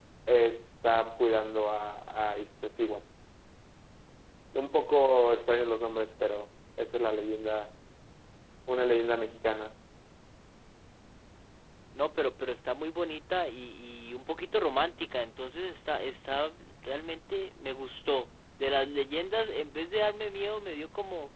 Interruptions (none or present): none